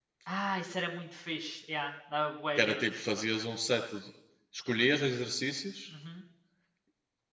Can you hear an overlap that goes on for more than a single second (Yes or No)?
No